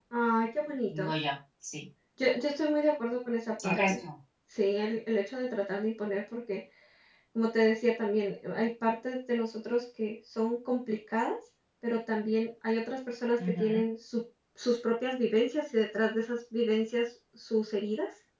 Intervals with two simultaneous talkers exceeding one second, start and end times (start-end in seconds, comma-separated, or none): none